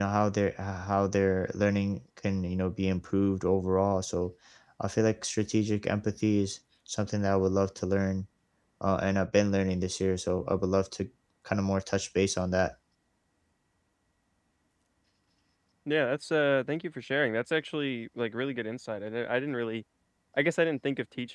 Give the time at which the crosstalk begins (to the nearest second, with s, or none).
none